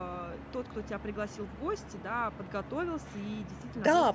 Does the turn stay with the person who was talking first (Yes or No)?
No